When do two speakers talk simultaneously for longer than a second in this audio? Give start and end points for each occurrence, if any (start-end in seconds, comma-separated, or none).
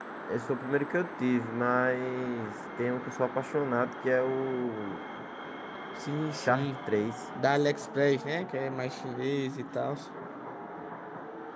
none